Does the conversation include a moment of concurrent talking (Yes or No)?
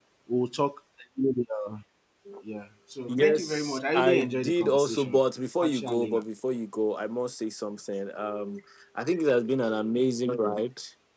Yes